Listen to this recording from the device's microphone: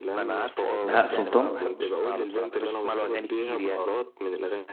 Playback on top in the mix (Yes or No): No